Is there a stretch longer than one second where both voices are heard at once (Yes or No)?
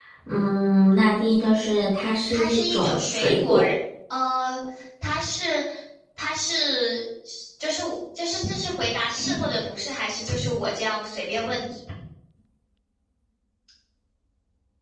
Yes